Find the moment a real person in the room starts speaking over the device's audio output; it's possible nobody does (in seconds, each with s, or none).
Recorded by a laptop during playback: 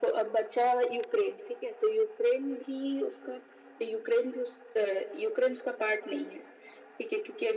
none